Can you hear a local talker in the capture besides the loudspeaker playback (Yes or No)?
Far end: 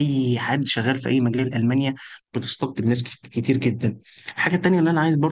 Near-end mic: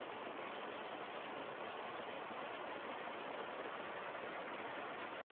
No